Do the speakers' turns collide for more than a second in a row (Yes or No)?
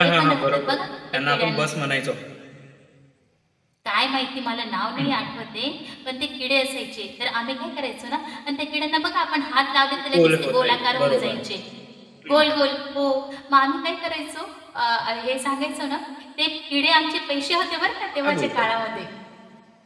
Yes